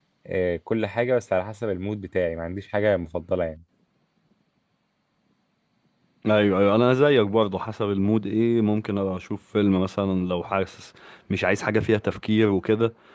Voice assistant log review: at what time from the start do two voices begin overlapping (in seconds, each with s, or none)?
none